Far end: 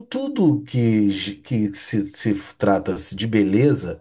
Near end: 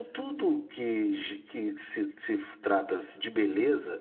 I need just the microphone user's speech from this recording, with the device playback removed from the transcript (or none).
none